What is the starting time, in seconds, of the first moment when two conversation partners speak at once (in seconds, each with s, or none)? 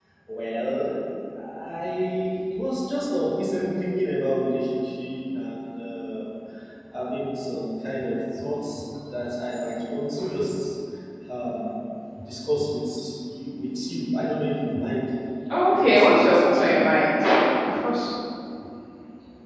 15.7 s